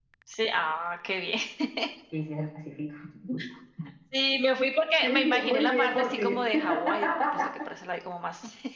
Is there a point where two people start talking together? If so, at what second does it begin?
5.0 s

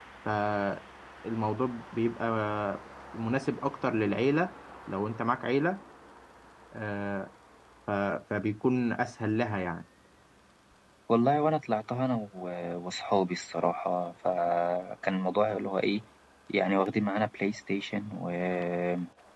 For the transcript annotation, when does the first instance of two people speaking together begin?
none

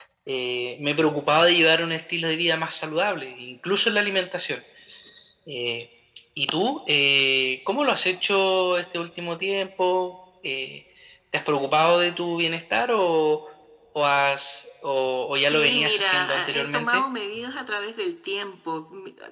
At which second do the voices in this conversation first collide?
15.5 s

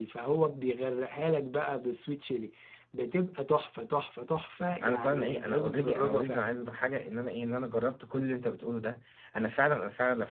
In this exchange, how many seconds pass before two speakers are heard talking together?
4.8 s

